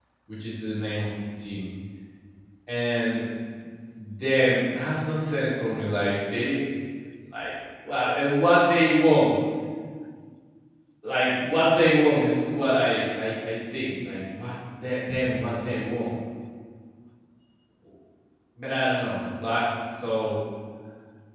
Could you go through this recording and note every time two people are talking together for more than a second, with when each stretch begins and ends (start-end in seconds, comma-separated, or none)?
none